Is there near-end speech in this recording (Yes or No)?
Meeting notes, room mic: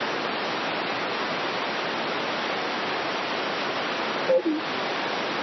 Yes